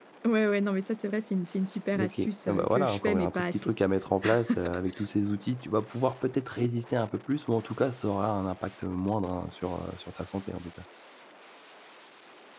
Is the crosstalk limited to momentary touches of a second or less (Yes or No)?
No